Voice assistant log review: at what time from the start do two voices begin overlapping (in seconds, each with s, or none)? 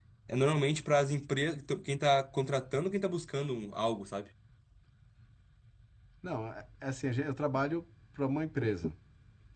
none